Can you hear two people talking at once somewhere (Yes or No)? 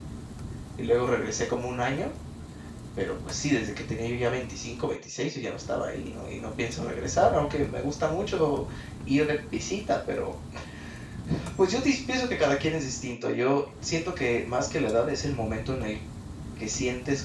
No